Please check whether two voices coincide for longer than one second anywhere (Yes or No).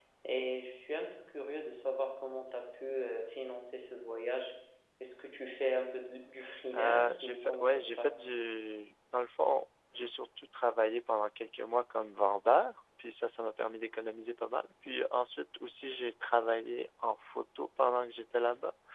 Yes